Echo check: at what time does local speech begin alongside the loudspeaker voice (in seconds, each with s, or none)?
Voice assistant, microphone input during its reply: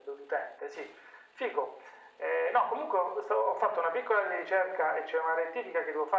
none